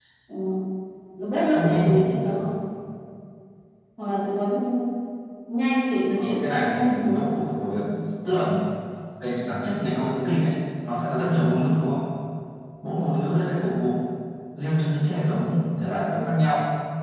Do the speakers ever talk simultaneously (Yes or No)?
Yes